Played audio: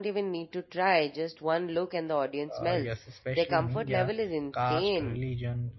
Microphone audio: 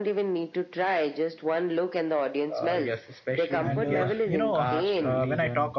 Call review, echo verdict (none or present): present